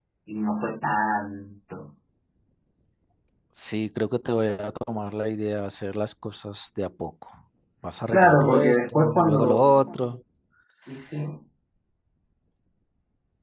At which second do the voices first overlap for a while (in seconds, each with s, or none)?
8.1 s